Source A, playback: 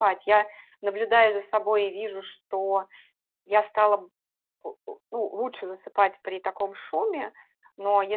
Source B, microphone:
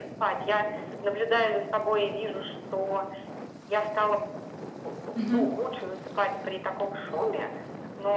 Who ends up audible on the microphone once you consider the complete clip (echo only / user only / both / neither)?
both